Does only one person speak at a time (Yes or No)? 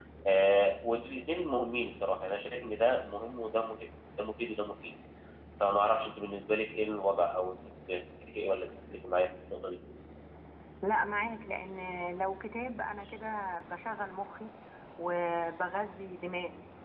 Yes